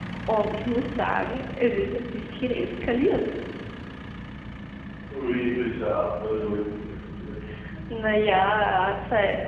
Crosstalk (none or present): none